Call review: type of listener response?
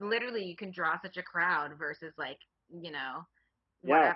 listening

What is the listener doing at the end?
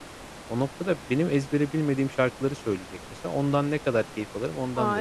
taking over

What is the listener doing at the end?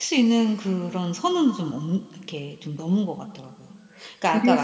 taking over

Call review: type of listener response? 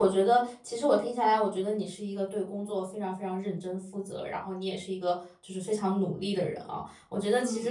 listening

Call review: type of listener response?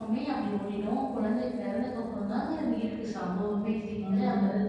taking over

